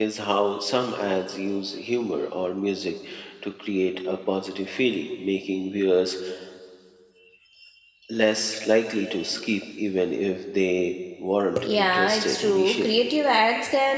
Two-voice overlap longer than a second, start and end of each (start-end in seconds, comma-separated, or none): 11.6-13.0